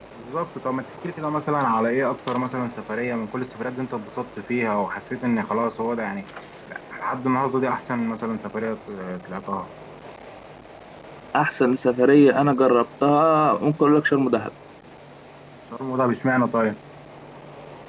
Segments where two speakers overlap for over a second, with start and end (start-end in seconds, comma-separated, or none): none